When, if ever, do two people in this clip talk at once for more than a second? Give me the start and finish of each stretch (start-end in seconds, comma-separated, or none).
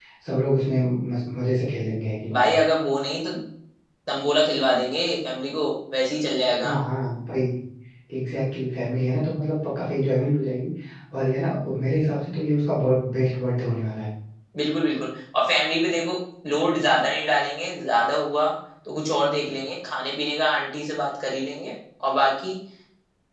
none